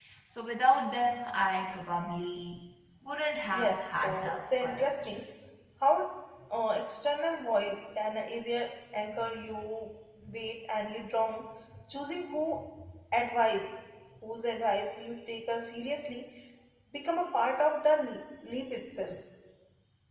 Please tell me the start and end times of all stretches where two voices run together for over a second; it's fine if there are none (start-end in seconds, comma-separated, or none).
3.5-5.2